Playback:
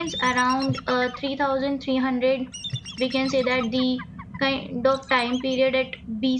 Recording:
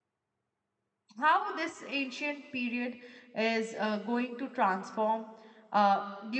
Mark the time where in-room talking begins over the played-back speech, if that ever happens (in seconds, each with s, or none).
1.2 s